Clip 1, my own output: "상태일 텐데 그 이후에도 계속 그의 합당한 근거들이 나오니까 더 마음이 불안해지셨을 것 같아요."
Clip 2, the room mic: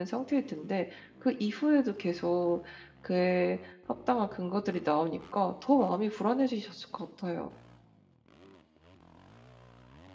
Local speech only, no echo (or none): none